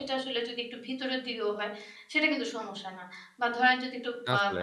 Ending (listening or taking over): listening